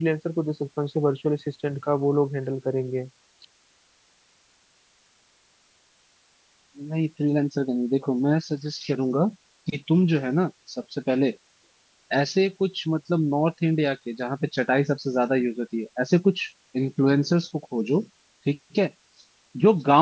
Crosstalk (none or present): none